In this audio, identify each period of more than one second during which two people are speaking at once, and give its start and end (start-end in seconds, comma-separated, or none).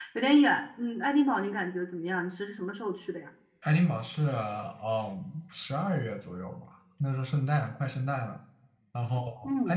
none